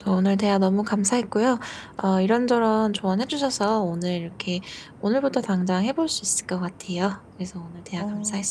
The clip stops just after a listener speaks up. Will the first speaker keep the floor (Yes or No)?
No